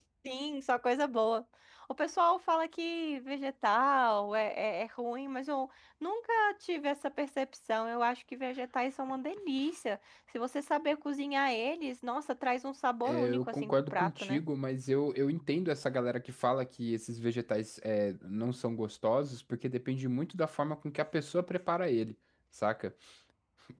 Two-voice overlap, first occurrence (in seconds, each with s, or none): 13.0 s